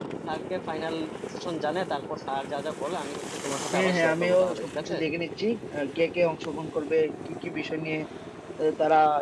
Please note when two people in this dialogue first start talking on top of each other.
3.7 s

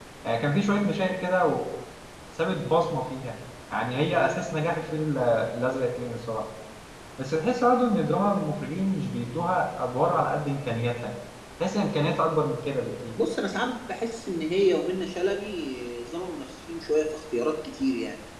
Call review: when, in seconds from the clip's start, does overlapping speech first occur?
none

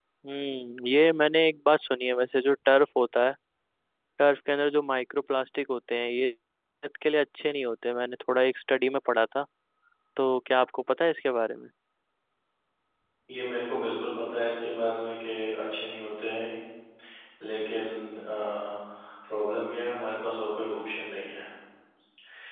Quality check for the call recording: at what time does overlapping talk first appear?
none

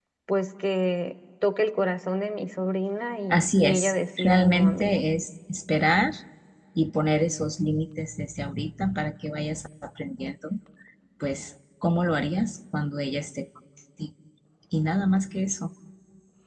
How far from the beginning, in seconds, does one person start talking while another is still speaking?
3.3 s

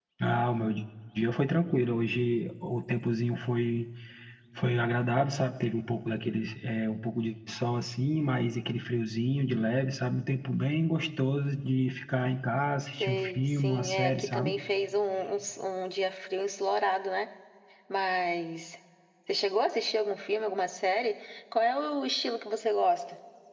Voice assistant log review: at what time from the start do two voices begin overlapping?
13.0 s

